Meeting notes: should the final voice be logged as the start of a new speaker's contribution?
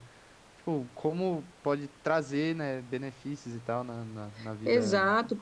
Yes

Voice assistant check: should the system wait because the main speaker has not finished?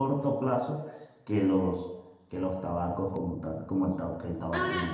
No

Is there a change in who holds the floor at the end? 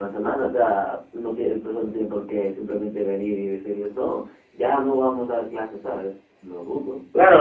Yes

